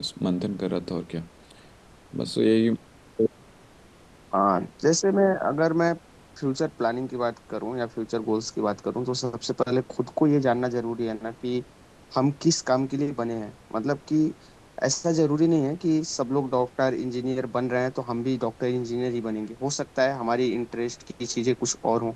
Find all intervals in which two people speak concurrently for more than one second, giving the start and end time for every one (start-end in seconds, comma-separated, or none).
none